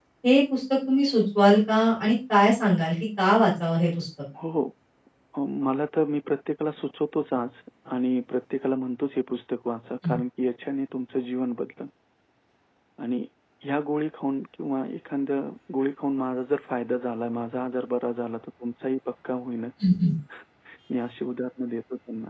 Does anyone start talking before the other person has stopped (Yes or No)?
No